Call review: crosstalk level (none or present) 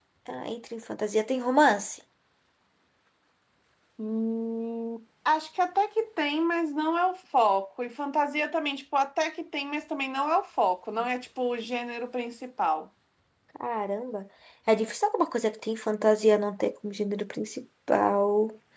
none